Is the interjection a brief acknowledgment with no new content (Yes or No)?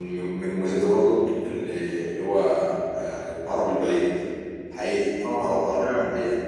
Yes